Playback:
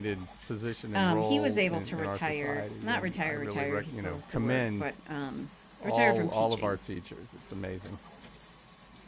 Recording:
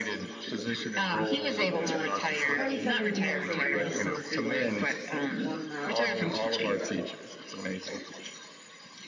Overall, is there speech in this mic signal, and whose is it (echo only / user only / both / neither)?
both